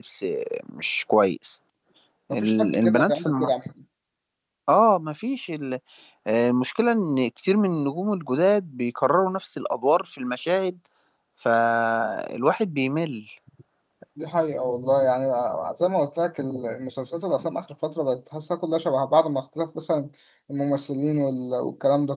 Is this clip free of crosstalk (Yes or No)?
No